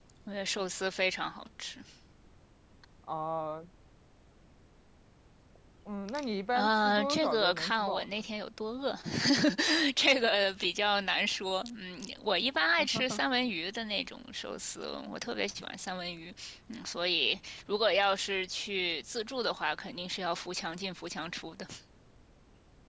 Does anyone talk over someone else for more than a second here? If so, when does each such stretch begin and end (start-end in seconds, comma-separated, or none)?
6.5-8.3